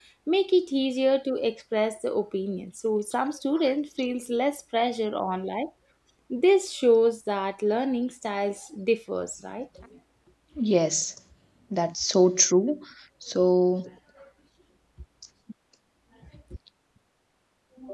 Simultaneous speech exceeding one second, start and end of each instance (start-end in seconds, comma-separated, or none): none